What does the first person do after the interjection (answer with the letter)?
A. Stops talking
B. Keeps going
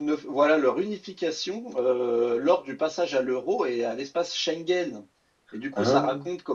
B